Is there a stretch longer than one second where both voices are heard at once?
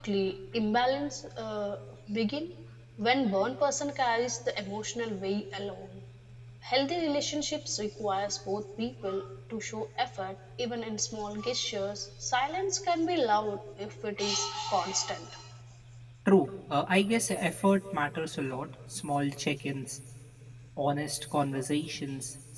No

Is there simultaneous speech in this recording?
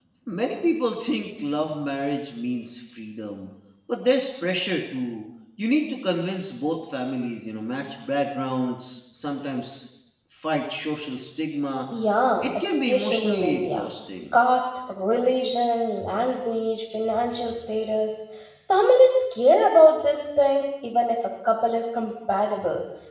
Yes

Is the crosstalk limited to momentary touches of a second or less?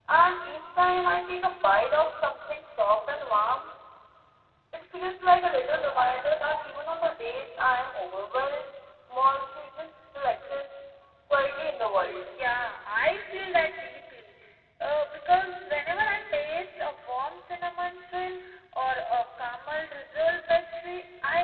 Yes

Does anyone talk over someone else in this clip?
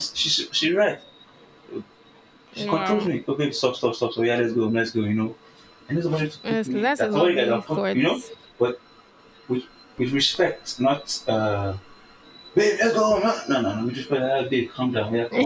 Yes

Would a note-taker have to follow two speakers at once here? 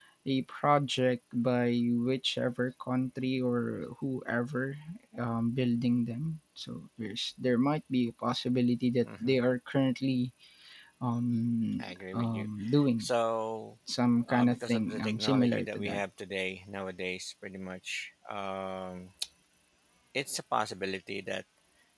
Yes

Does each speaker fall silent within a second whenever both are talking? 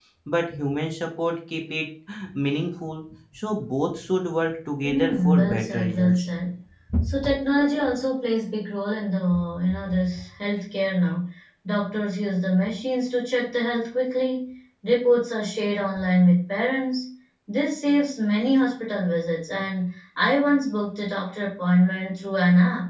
No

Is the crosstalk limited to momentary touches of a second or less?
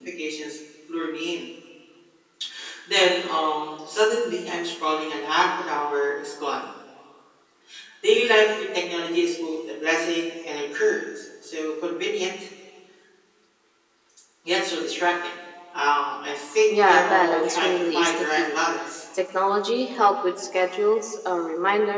No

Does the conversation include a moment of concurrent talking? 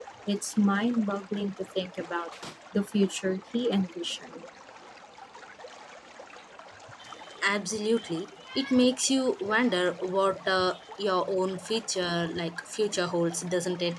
No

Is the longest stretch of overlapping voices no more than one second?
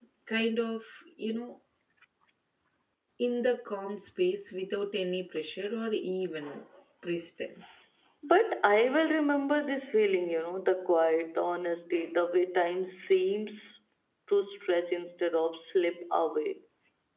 Yes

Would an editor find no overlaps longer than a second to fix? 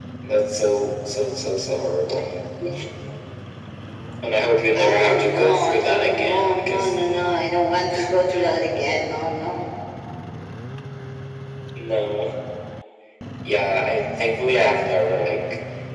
No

